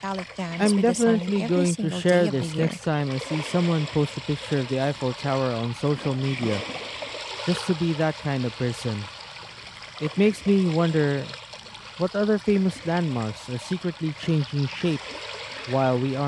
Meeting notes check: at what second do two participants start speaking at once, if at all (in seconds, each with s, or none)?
0.6 s